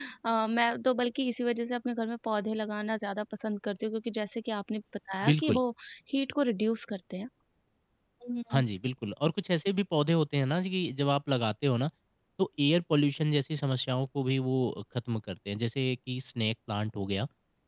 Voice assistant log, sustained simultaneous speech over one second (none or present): none